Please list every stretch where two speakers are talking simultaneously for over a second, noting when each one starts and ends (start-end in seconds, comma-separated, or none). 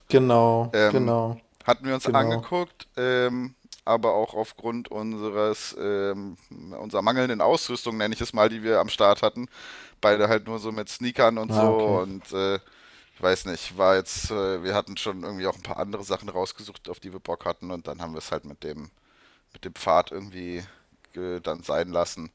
none